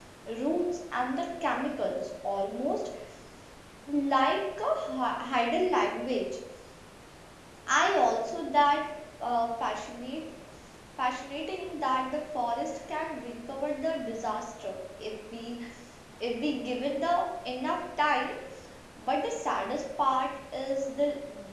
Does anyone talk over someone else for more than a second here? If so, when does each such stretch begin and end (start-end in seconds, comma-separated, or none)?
none